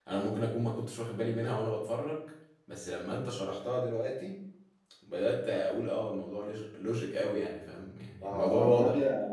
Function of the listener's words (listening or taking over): taking over